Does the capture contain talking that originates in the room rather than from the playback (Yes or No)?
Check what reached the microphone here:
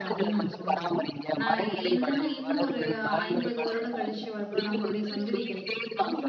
Yes